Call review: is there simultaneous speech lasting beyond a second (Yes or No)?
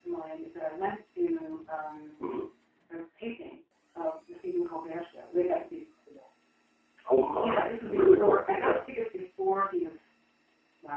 Yes